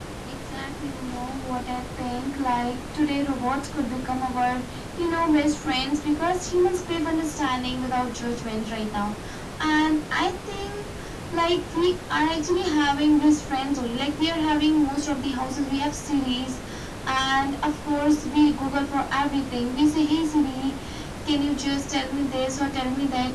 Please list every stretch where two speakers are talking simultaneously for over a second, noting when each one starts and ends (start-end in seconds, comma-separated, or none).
none